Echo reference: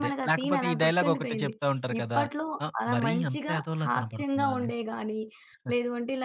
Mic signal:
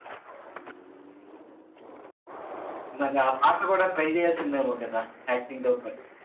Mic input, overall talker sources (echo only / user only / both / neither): user only